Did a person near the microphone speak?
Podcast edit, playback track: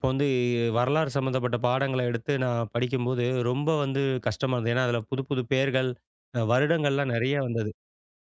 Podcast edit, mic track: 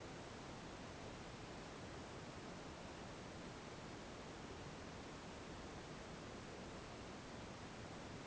No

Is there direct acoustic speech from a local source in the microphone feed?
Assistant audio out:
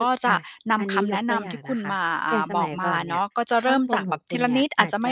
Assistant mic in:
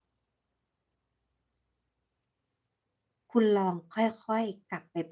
Yes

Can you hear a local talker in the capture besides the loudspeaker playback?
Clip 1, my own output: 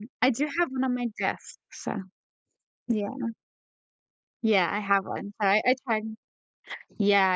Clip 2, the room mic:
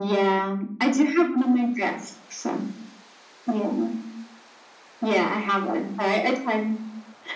No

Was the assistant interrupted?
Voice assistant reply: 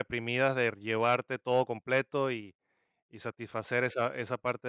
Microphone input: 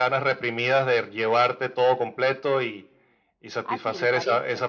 Yes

